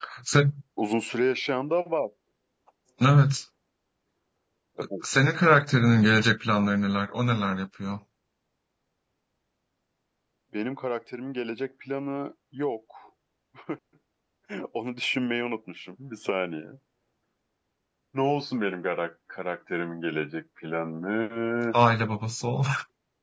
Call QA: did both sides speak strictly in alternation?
Yes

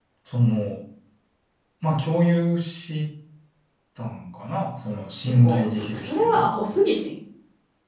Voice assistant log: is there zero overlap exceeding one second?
No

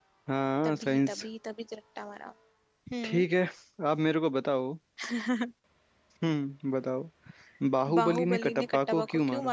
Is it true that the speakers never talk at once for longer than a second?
No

